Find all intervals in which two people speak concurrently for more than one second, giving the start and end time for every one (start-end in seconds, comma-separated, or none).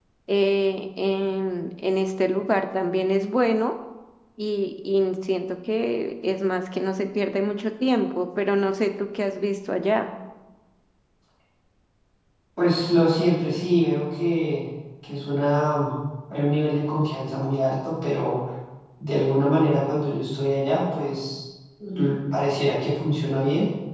none